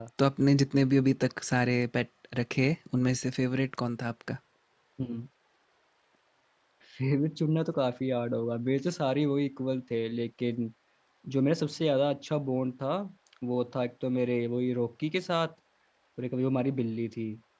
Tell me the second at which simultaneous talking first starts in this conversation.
none

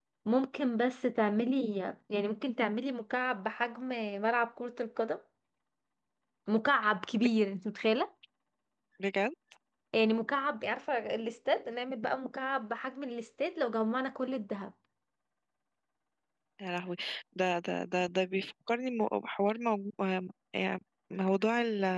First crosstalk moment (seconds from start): none

